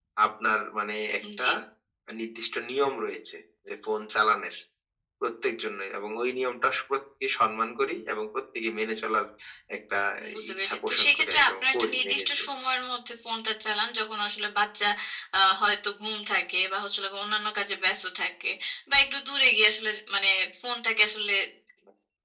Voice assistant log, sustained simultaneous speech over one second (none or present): present